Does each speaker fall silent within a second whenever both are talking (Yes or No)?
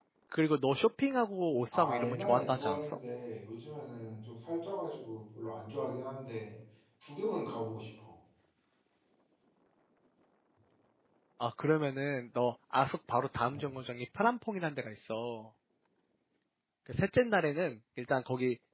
No